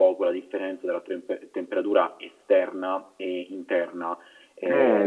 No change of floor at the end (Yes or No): No